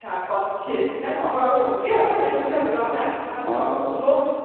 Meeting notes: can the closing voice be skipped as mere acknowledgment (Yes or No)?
Yes